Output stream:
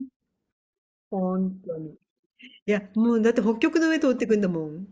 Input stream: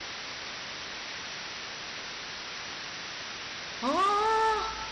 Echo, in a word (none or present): none